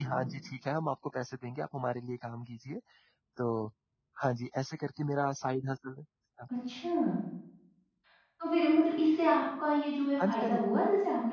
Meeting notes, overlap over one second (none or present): none